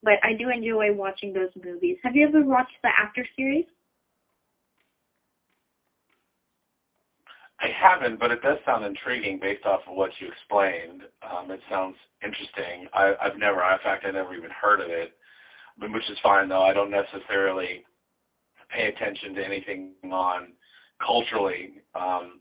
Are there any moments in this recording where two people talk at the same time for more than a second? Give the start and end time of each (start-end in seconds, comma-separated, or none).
none